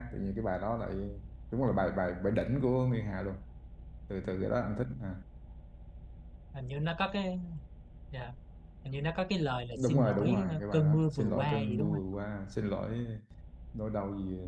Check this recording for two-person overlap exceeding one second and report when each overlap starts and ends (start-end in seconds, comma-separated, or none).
9.8-12.0